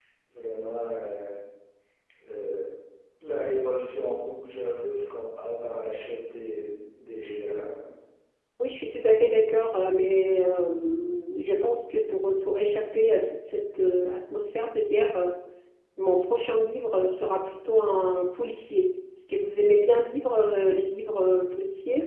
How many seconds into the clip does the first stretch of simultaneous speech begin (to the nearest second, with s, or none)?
none